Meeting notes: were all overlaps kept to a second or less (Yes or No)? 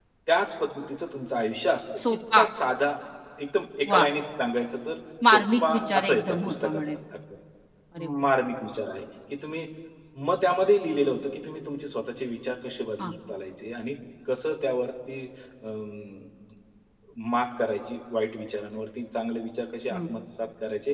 No